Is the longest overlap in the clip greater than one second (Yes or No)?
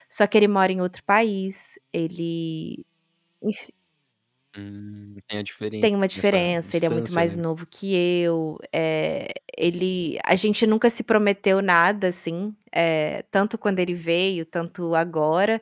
Yes